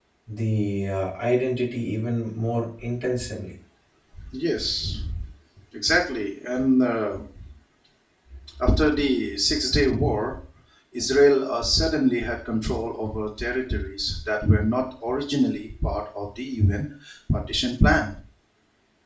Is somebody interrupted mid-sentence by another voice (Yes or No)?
No